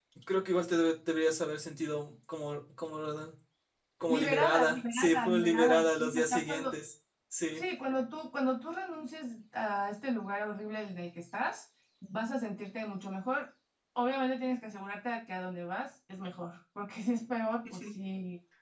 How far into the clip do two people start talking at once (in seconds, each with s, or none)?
4.1 s